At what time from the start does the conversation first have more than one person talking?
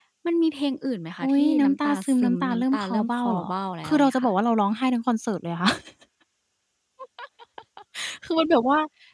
1.2 s

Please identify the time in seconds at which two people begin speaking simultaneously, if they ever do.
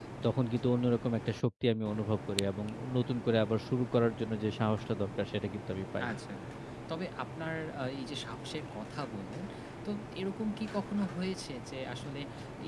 none

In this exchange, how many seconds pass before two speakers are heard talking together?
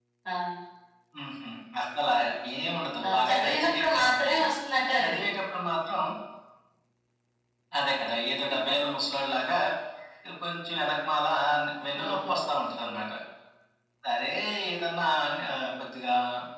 3.0 s

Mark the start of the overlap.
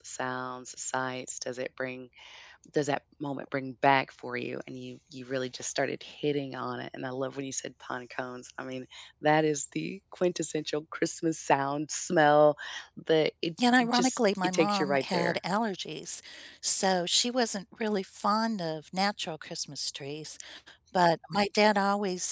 13.6 s

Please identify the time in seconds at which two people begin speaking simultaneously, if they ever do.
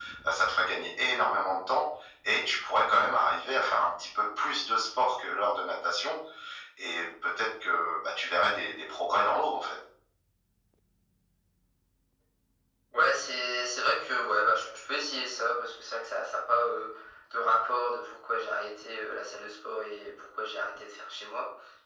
none

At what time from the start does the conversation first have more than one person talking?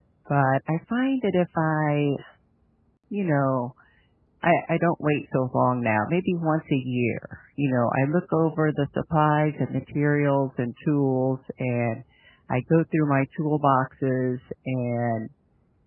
none

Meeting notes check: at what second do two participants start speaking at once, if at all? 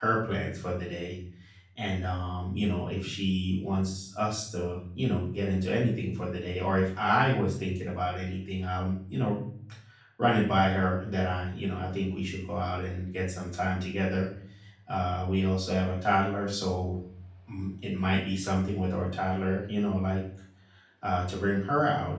none

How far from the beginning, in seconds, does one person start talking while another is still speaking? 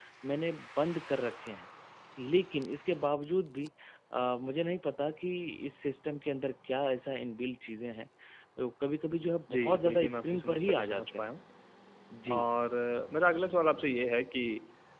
9.5 s

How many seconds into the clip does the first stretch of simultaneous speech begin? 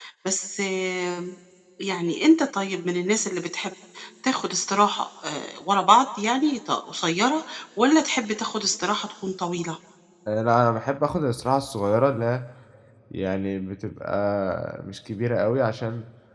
none

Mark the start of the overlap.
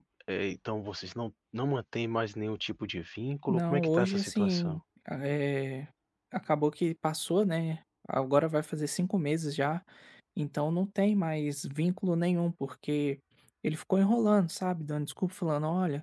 3.5 s

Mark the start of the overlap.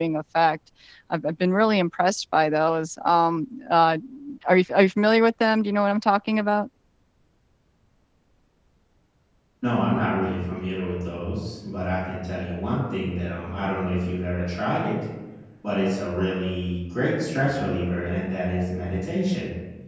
none

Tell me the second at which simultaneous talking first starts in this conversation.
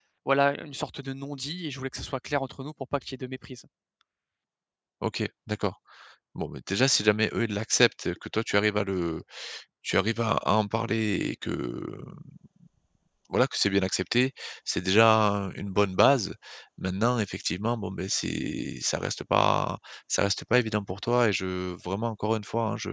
none

